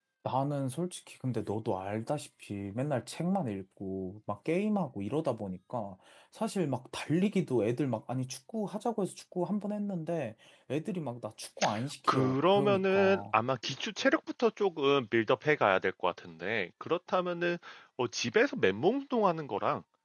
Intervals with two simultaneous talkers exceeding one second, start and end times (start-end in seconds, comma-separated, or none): 12.1-13.4